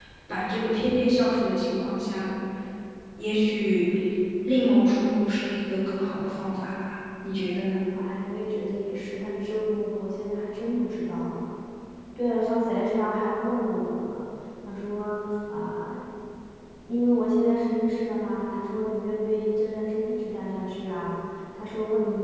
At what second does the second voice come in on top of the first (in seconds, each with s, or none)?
none